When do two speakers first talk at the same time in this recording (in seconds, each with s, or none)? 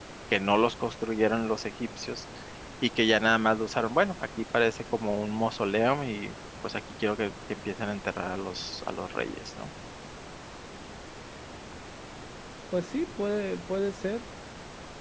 none